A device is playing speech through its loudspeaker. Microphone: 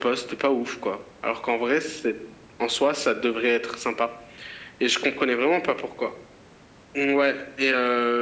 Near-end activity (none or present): none